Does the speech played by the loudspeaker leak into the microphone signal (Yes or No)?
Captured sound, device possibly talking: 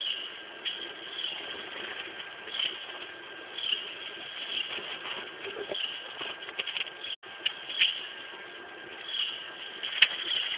No